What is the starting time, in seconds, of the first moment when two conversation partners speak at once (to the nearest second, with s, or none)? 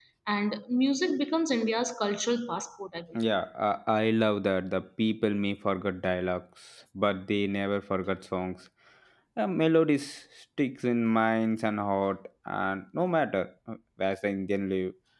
none